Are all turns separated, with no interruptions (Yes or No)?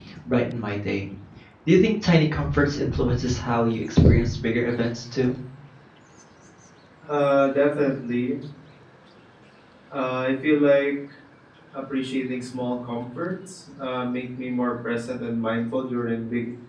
Yes